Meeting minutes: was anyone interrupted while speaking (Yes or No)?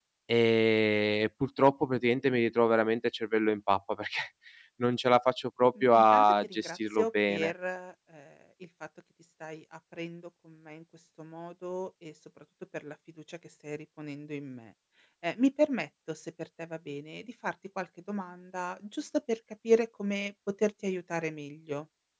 Yes